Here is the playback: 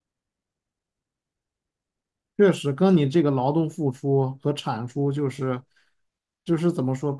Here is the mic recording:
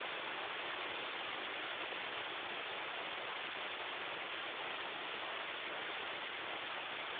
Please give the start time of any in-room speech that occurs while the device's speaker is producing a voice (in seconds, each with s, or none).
none